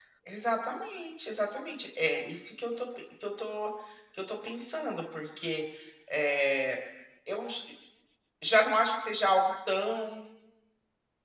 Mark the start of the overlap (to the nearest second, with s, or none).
none